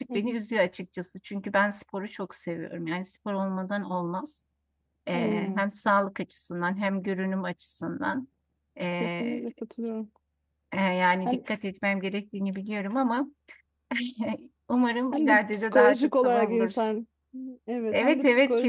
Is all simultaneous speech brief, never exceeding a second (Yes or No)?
No